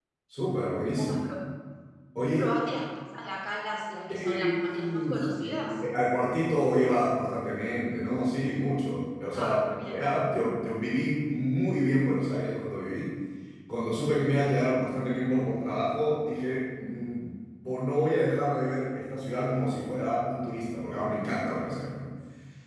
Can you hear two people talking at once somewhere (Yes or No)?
Yes